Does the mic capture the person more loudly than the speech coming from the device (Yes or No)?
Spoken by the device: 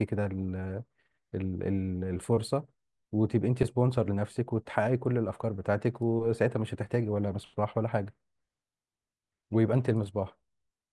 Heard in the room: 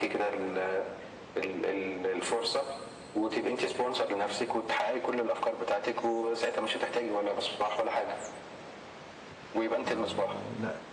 No